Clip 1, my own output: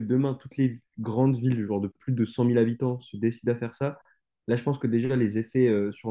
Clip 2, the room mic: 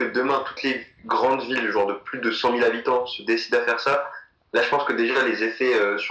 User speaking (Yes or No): No